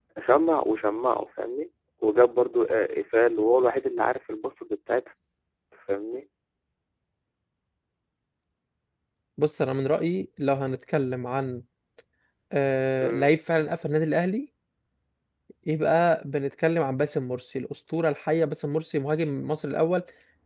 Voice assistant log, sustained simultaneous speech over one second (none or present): none